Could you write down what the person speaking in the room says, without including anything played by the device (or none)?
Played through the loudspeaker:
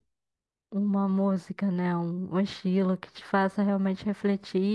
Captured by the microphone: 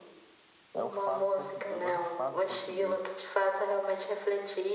É o fado português. Eu gosto de fado português.